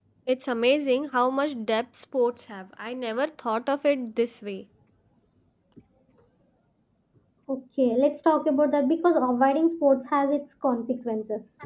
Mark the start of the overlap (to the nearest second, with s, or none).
none